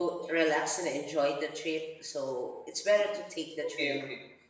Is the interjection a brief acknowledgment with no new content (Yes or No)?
No